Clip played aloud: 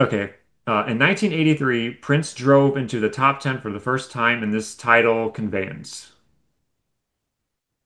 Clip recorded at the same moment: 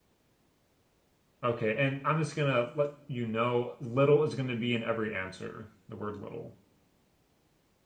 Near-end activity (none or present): present